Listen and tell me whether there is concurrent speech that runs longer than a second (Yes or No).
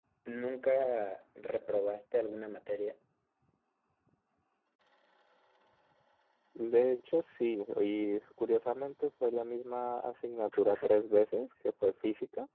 No